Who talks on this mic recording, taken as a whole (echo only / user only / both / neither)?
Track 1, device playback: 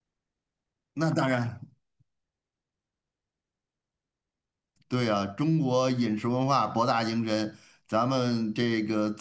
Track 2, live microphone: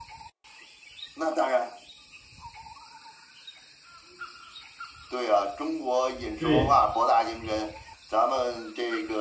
both